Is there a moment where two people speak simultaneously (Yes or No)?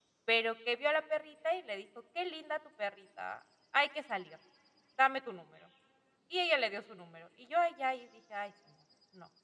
No